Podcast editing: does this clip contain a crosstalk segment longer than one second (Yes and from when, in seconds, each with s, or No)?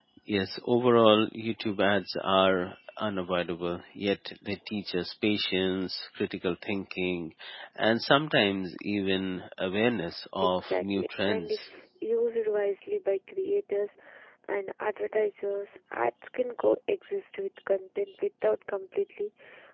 Yes, from 10.4 s